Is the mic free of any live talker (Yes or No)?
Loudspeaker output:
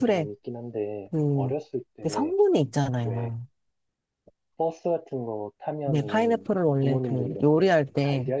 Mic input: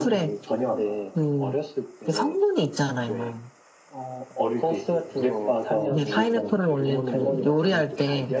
No